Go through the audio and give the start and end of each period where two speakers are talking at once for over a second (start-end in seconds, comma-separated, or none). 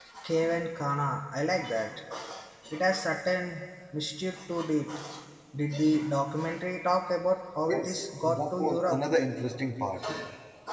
7.7-9.0